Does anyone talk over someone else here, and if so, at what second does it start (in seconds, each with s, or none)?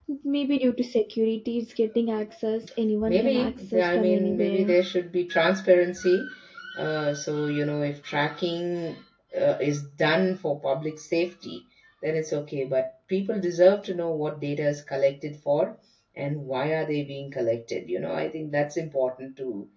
3.1 s